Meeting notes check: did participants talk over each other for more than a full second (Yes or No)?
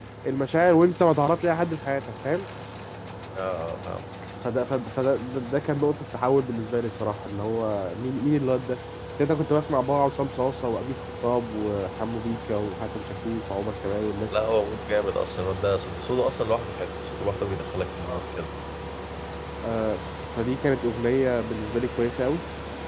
No